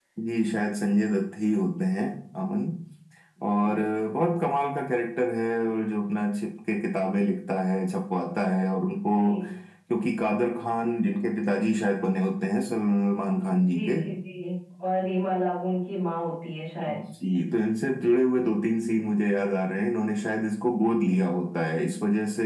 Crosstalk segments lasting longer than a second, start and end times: none

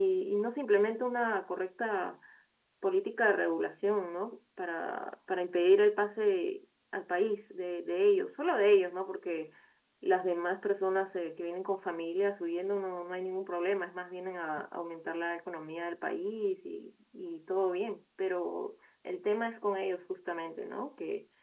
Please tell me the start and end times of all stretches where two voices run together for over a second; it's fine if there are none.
none

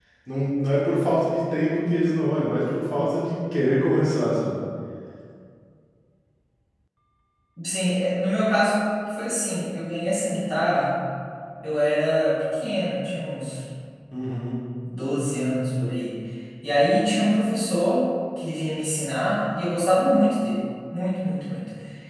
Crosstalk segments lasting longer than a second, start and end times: none

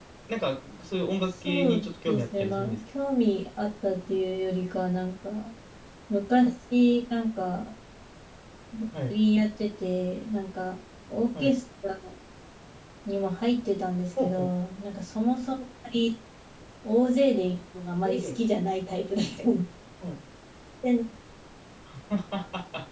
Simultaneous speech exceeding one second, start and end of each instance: 1.4-2.8

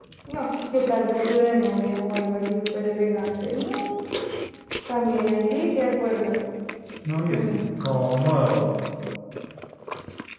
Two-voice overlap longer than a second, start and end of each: none

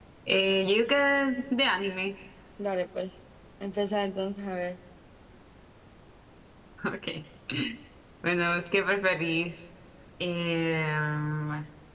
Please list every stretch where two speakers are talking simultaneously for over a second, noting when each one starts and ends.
none

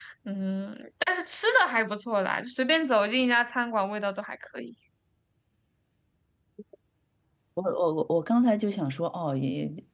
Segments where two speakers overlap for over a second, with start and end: none

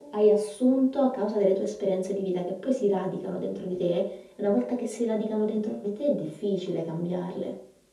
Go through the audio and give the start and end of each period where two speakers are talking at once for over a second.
none

